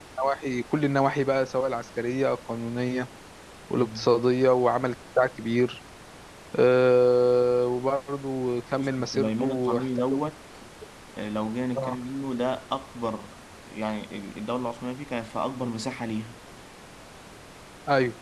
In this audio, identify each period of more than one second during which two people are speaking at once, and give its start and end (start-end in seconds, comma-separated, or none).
8.8-10.2